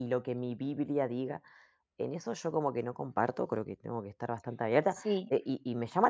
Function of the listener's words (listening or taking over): listening